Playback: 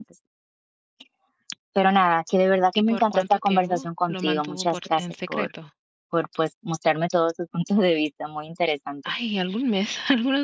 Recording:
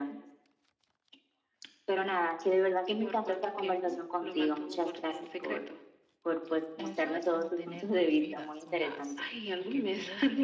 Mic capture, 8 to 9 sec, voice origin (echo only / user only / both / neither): both